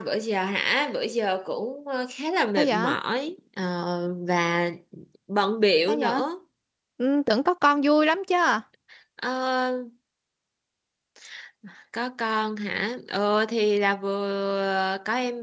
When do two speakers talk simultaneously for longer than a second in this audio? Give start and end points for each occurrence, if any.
none

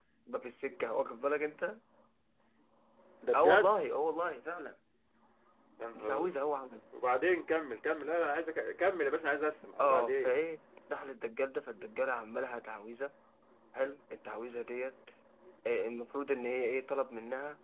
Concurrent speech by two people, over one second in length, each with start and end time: none

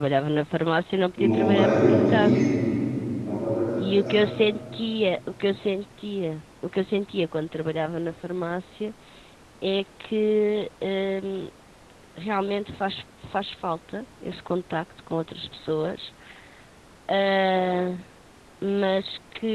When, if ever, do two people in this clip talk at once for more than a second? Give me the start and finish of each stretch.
1.2-2.4

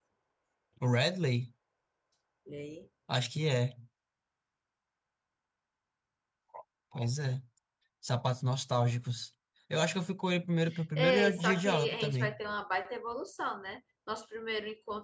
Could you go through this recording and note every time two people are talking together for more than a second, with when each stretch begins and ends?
11.0-12.4

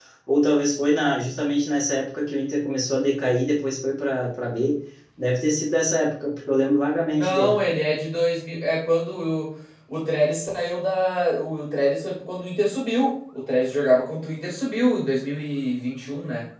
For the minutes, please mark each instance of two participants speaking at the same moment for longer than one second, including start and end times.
none

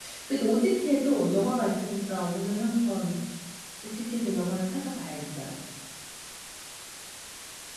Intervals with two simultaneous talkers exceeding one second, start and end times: none

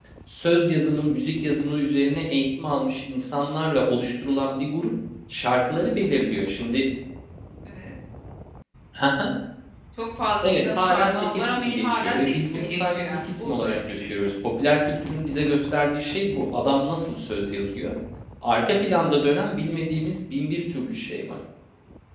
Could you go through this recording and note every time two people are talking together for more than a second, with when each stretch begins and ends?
10.4-14.0

